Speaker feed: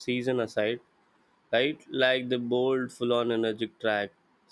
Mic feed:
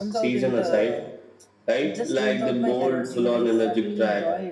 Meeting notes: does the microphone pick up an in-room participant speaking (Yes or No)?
Yes